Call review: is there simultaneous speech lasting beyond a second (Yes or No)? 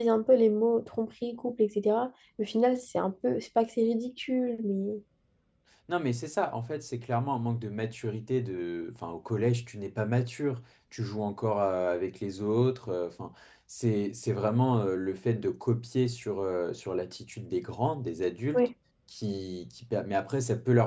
No